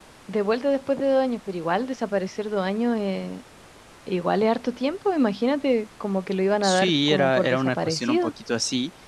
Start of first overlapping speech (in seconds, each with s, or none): 6.6 s